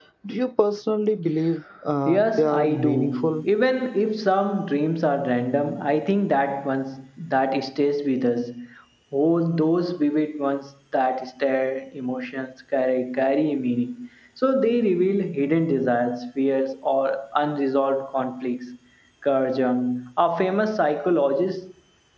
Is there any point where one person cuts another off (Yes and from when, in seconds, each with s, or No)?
Yes, from 2.1 s